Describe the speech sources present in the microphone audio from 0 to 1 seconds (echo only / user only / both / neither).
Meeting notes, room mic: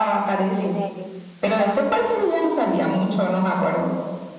both